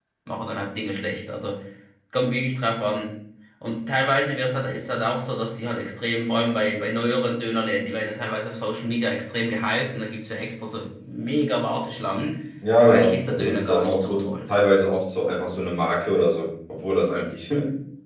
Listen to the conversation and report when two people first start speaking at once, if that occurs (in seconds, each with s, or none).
12.8 s